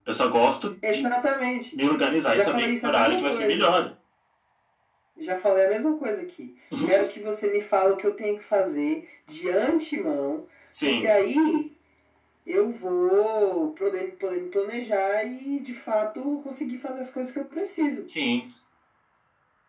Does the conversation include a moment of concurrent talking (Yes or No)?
Yes